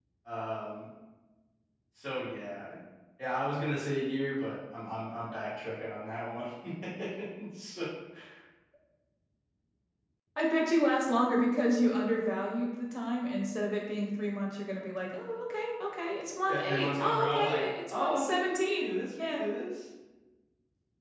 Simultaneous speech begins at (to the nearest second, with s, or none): 16 s